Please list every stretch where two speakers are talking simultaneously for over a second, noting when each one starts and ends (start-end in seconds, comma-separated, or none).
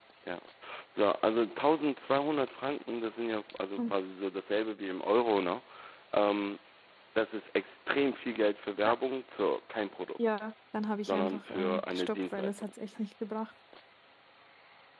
11.1-12.7